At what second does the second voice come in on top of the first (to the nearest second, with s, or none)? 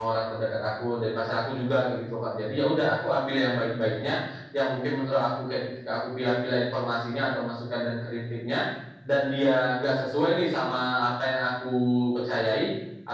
none